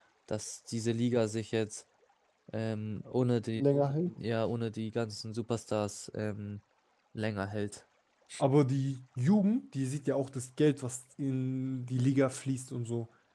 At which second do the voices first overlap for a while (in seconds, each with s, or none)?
none